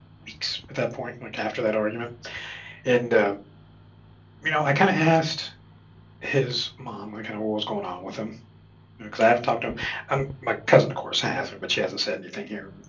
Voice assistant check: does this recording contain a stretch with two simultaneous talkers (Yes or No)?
No